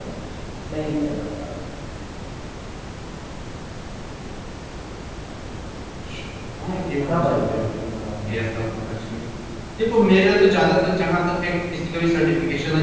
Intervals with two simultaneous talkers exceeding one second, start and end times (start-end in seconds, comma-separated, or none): none